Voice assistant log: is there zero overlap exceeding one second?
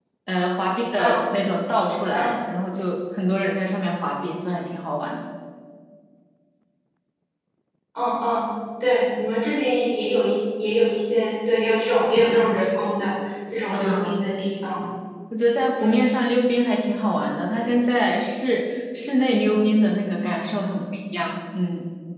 Yes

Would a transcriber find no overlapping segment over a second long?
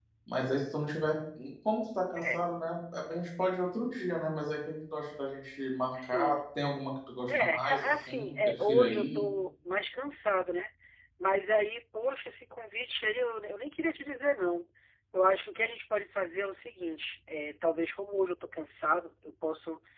No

